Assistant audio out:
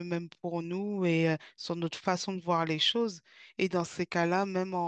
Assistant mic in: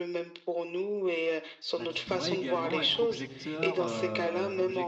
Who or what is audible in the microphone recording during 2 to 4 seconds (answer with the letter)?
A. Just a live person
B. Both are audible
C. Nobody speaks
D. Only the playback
B